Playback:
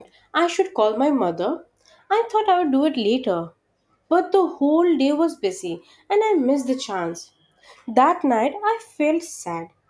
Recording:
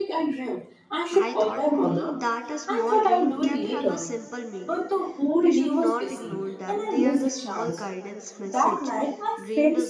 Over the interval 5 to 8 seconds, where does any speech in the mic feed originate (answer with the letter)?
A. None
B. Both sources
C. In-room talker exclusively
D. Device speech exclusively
B